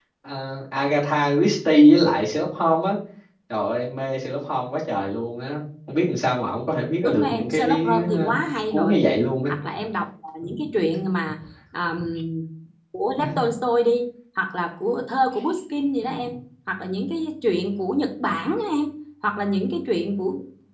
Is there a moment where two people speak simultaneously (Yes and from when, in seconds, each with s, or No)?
Yes, from 7.0 s